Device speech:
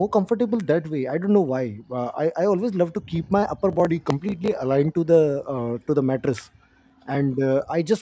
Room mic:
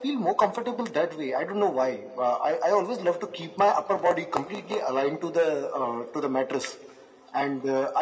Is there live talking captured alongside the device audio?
No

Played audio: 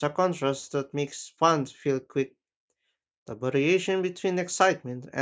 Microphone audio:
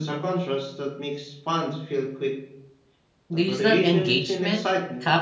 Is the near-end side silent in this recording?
No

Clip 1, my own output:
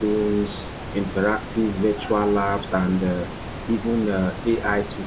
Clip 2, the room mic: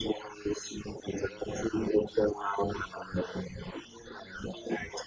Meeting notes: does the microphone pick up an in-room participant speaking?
No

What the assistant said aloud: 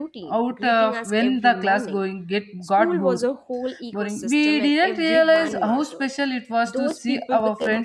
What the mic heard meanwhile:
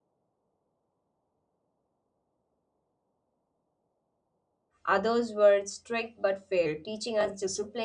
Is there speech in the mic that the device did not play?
Yes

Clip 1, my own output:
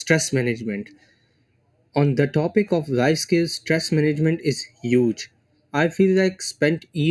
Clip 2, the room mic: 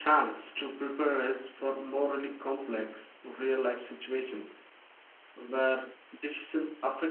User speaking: Yes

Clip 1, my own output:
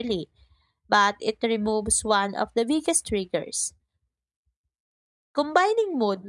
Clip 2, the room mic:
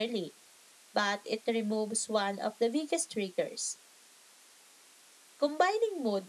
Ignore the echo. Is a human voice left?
No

